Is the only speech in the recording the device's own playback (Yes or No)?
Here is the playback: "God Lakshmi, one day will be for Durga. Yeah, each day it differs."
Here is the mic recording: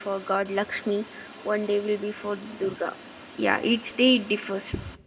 Yes